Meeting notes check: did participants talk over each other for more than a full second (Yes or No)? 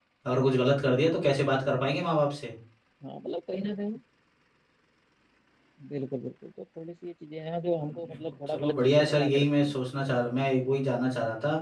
Yes